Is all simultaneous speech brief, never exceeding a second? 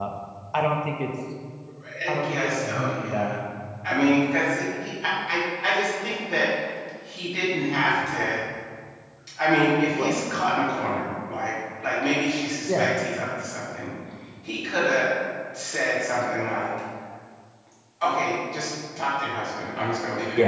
No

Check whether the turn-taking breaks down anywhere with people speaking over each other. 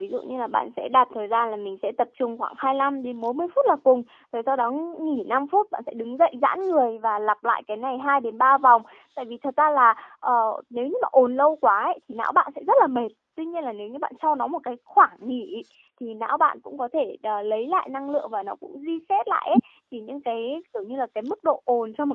No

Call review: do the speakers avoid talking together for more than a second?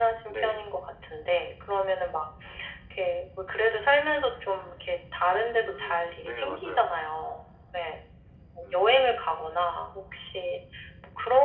No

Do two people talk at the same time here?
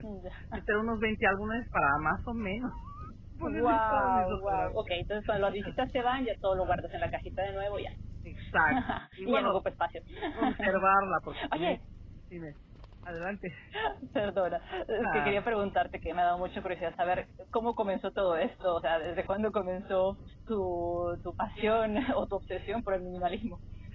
Yes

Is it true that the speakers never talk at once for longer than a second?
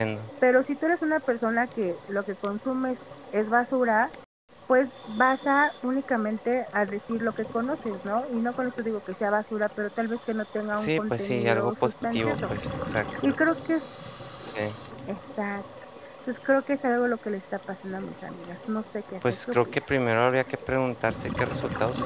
No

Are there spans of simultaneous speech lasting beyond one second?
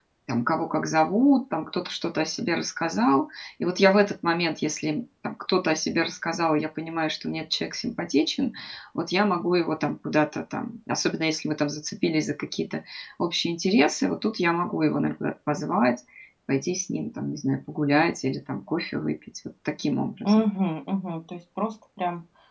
No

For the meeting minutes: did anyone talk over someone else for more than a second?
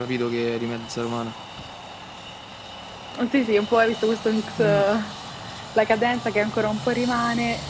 No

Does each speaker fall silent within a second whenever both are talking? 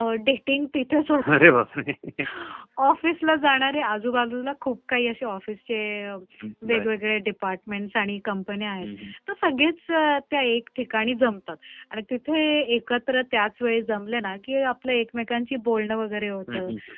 Yes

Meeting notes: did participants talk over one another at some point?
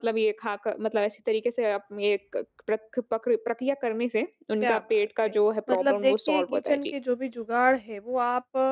Yes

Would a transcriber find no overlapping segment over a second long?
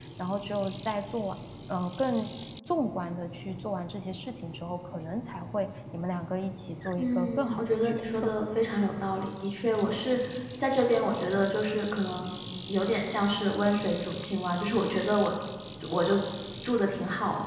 No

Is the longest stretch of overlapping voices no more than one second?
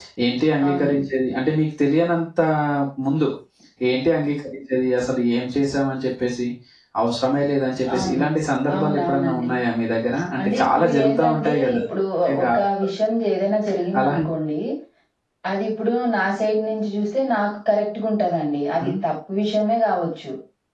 No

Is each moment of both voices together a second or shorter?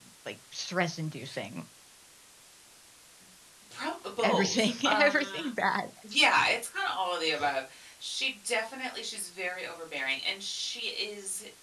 No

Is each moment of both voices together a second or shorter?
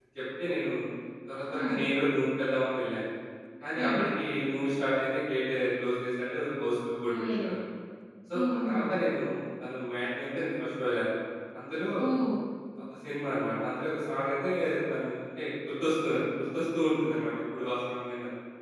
Yes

